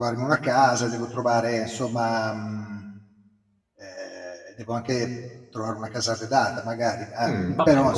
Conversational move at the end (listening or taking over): taking over